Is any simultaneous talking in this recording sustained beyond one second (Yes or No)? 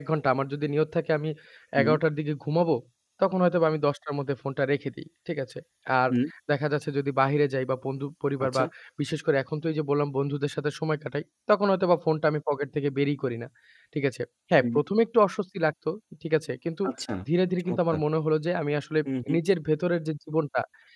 No